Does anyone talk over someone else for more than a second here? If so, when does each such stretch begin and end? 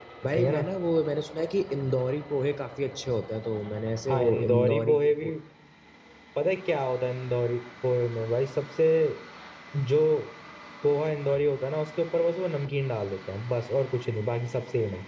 4.1-5.3

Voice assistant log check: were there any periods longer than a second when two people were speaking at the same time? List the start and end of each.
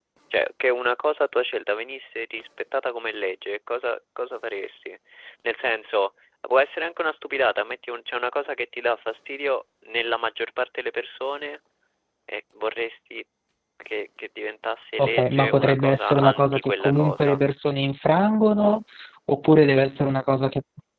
15.0-17.4

